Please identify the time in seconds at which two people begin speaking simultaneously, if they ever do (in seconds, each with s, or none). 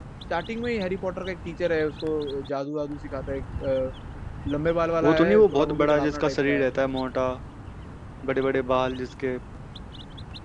5.0 s